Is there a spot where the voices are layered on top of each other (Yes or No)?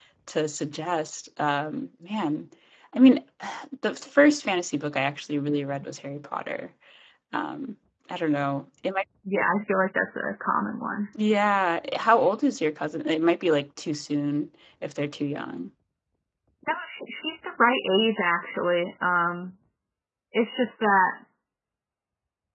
No